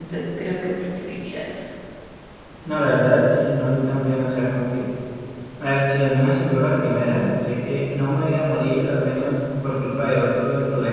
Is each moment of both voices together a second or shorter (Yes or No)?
Yes